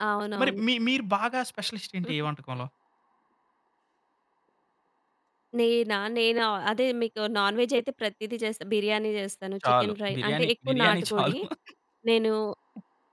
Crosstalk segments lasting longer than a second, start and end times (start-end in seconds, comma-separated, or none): 9.7-11.3